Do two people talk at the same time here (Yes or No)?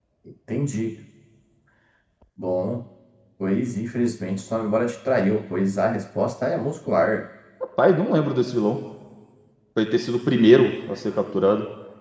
No